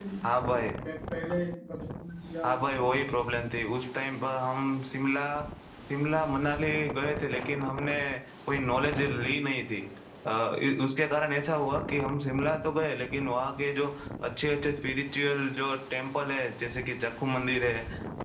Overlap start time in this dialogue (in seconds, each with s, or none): none